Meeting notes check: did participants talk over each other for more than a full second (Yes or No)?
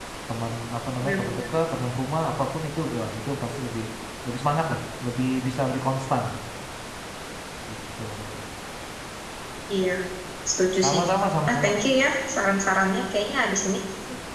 No